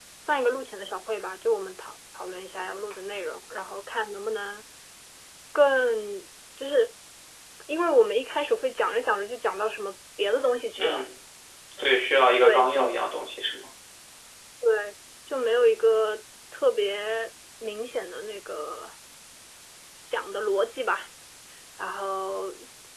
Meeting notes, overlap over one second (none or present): none